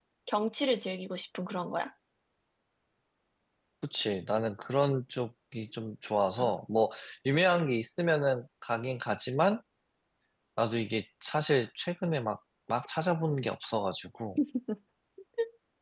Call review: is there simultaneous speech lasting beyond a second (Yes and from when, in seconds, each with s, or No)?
No